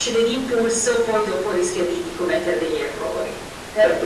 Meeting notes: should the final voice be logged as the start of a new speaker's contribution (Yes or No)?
Yes